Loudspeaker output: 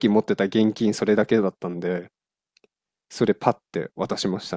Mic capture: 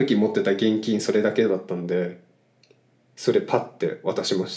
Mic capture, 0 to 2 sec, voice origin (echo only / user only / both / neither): echo only